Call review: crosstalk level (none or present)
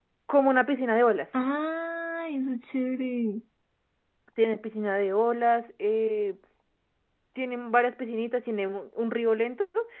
none